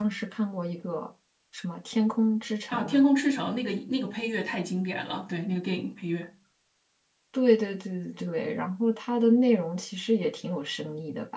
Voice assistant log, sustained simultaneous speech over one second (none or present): none